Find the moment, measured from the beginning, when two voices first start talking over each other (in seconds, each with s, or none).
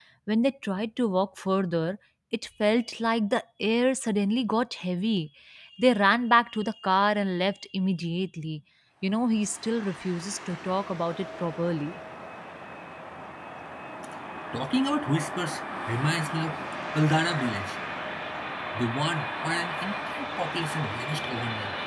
none